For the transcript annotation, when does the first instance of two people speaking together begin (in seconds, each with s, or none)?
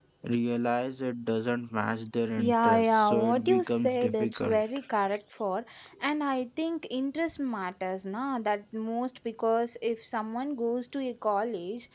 2.4 s